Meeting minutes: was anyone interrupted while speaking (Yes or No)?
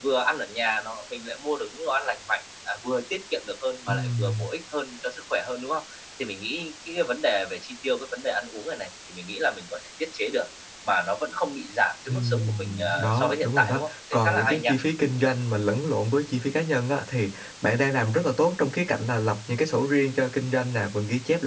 Yes